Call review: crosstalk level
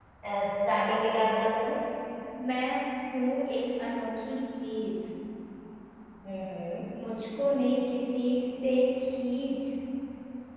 none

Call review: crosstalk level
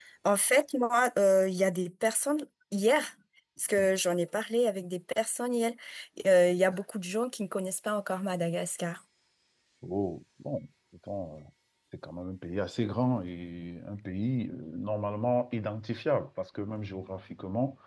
none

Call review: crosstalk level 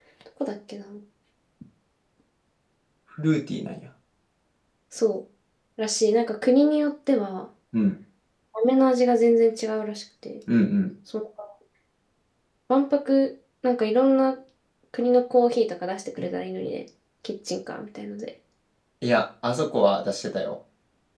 none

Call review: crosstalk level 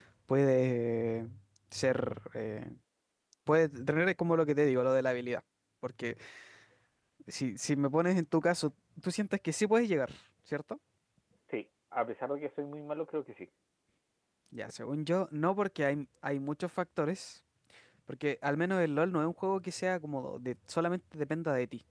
none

